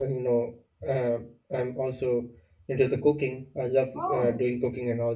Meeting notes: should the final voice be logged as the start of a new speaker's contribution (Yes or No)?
No